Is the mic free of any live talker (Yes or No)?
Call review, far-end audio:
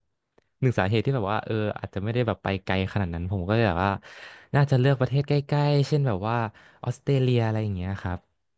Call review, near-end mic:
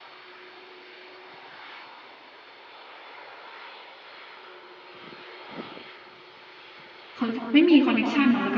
No